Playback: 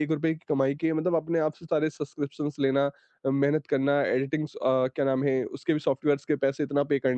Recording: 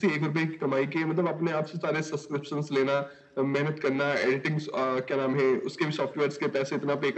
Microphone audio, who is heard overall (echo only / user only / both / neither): echo only